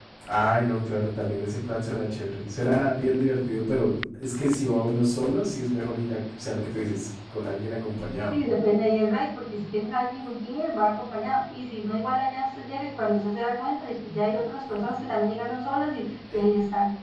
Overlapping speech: No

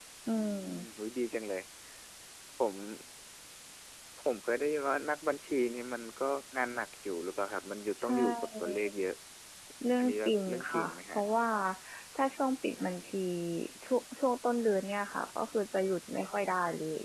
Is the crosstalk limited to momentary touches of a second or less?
No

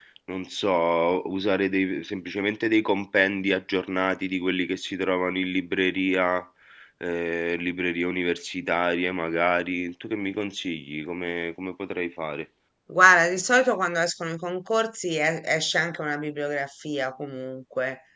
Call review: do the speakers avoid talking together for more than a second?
Yes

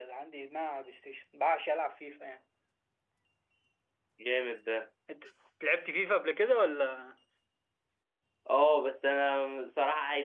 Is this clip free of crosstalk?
Yes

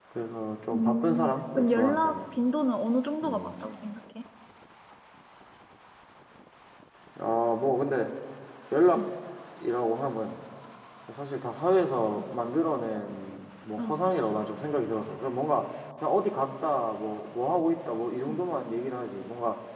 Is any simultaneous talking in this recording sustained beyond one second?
Yes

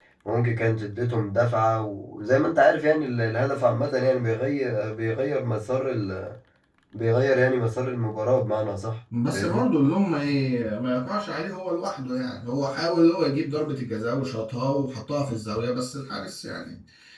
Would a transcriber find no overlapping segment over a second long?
Yes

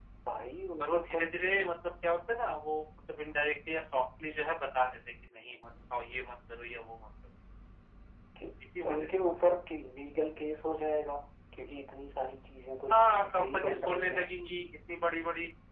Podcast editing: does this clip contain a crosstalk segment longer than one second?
Yes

